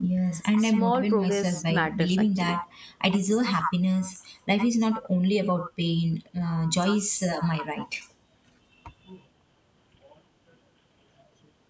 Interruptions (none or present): present